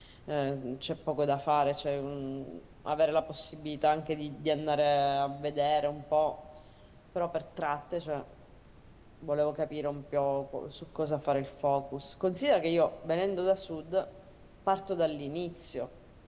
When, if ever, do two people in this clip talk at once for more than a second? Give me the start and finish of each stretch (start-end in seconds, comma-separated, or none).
none